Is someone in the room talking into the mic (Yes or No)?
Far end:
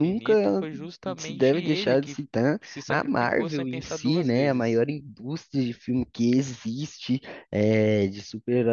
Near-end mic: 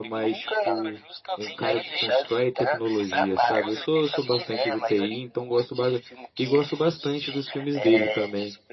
Yes